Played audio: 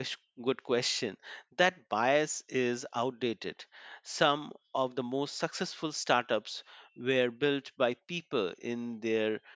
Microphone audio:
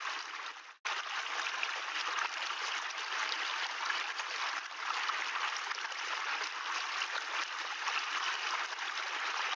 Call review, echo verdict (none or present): none